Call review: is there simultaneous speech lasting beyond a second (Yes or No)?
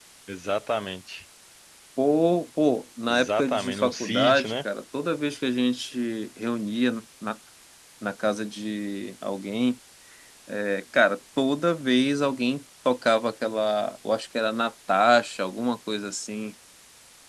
Yes